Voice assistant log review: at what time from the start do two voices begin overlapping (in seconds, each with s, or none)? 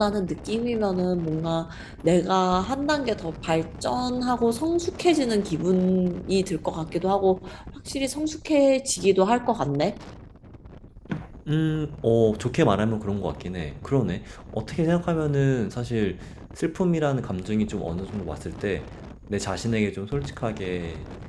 none